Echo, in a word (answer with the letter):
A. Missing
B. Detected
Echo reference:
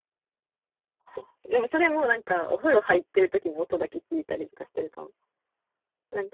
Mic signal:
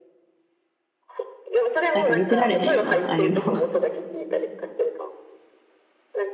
B